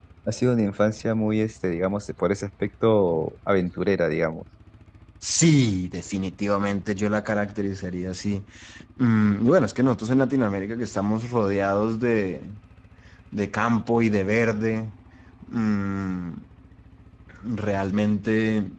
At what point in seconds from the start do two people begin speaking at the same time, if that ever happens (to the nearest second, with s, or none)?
none